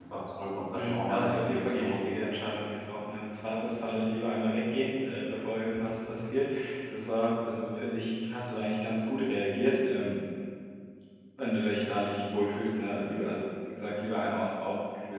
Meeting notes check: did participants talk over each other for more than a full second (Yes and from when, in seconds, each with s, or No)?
Yes, from 0.7 s